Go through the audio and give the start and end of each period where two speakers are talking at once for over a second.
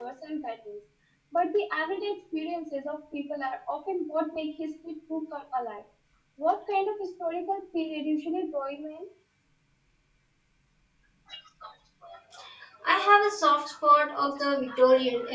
none

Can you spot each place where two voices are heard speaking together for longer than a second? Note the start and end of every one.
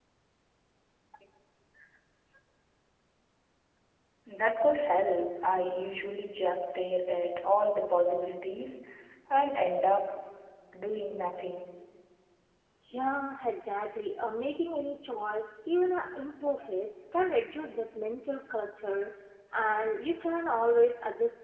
none

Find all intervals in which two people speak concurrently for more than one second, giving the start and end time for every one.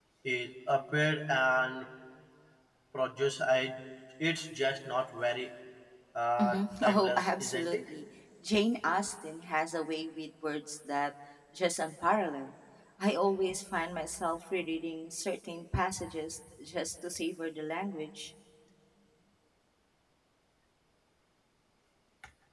6.4-7.9

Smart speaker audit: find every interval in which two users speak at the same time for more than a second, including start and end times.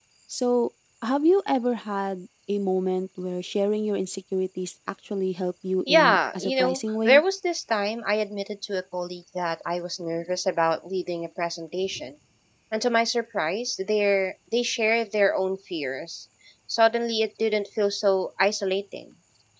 5.9-7.2

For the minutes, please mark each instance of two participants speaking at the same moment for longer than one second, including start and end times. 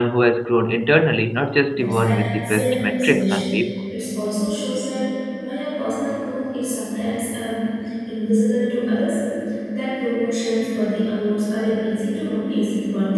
1.7-3.6

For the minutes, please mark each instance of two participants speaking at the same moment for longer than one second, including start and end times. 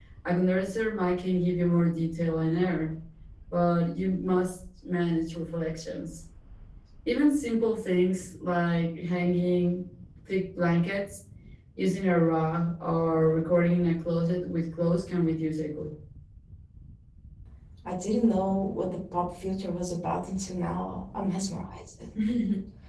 none

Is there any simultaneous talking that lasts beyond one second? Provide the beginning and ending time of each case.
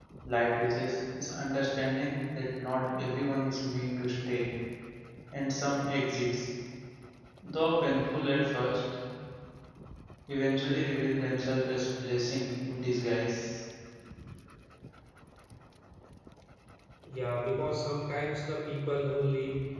none

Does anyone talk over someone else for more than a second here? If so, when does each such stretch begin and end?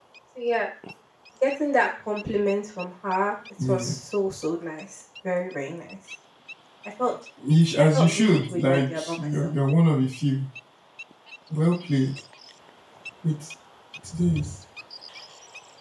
7.9-9.5

